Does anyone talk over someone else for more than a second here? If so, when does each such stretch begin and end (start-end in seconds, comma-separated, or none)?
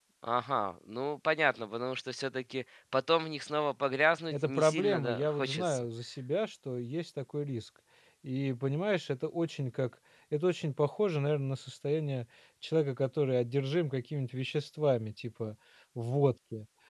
4.3-5.8